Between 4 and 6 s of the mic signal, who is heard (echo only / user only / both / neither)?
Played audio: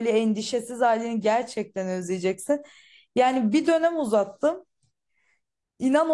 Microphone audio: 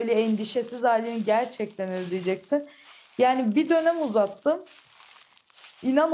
echo only